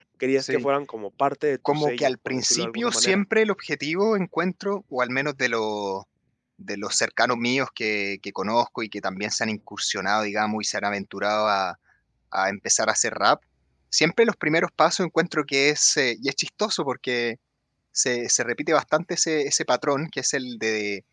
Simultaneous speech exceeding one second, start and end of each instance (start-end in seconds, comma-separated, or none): 1.7-3.2